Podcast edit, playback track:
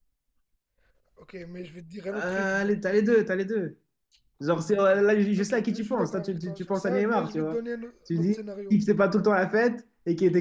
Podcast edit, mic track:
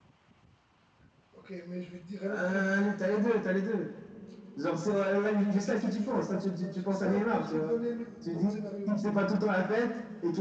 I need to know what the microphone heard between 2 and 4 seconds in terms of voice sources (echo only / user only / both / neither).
echo only